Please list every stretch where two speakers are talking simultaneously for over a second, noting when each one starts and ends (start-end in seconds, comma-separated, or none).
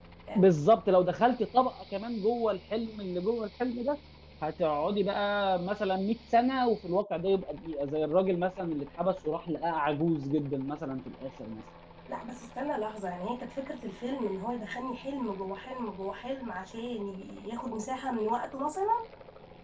none